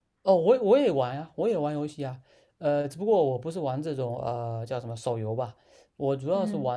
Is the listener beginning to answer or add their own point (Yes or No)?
No